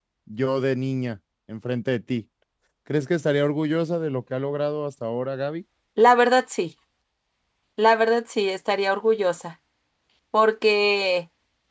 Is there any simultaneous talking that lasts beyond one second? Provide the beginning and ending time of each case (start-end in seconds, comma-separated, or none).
none